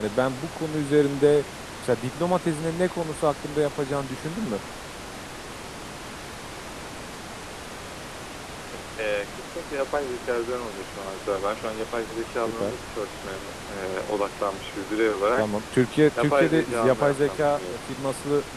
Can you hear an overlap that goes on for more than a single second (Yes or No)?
Yes